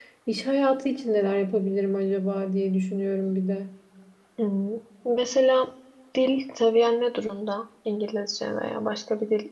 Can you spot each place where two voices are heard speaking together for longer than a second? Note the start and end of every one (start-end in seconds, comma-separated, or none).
none